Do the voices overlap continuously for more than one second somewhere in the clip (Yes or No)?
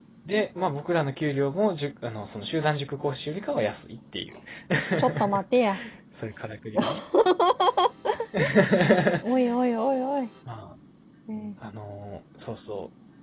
No